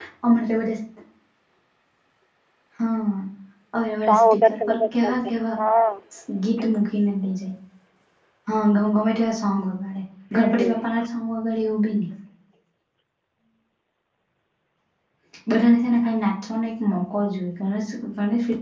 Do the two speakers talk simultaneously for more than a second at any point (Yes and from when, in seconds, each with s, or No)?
Yes, from 4.0 s